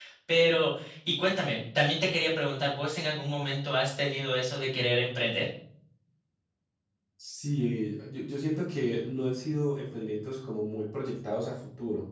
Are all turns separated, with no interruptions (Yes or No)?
Yes